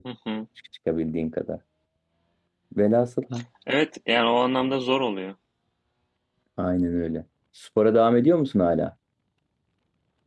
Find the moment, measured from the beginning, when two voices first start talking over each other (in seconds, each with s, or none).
none